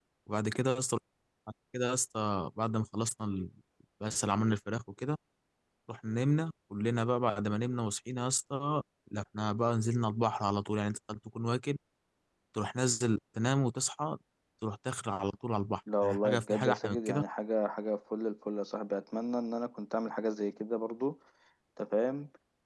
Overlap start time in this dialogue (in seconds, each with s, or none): 15.9 s